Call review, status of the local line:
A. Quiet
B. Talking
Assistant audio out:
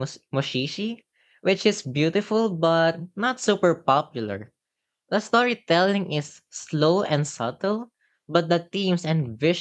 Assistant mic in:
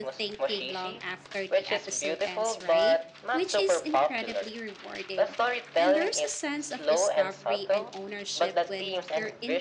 B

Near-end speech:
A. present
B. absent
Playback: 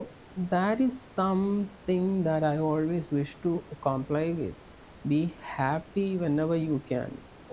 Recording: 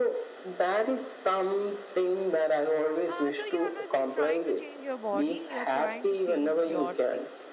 A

